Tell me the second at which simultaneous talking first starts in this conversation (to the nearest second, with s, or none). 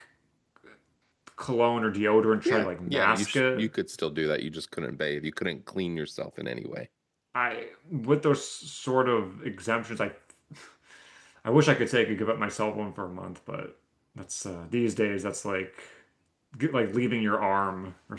2 s